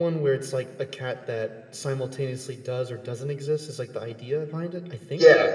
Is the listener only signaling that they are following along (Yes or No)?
No